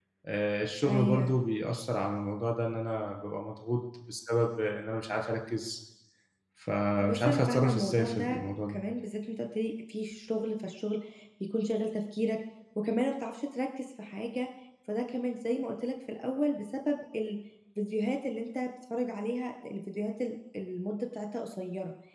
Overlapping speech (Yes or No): Yes